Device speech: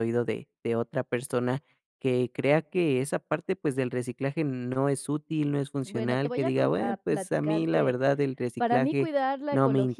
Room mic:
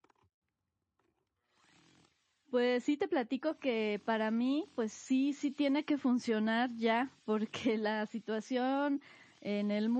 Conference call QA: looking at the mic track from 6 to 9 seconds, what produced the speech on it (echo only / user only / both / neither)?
user only